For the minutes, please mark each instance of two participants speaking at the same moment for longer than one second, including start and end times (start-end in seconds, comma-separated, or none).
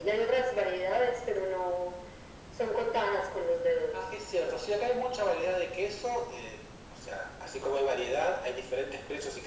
none